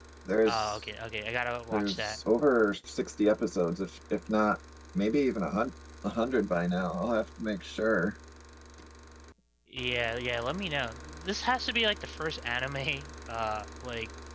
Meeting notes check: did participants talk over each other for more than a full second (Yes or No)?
No